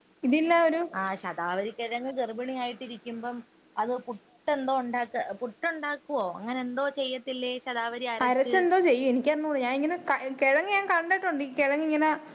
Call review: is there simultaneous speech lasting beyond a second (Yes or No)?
No